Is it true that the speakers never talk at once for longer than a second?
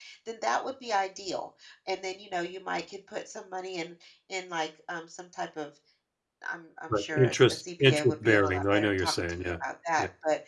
No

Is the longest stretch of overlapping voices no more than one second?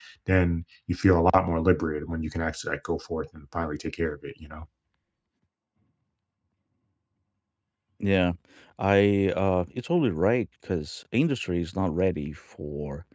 Yes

